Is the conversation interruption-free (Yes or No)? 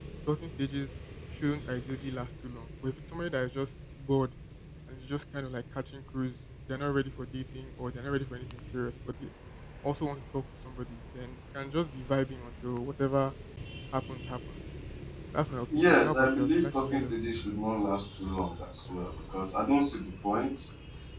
No